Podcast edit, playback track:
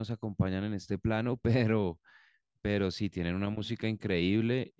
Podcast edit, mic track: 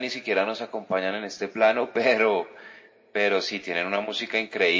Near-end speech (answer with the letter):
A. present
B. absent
B